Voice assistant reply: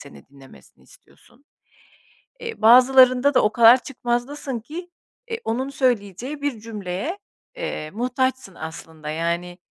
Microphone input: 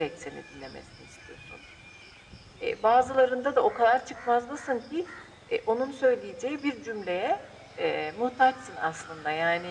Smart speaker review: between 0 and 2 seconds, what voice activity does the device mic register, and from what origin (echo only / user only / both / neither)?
echo only